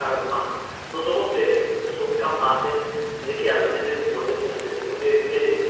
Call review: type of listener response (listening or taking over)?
listening